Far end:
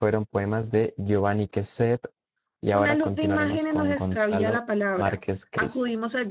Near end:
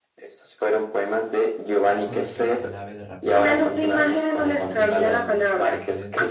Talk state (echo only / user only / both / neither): both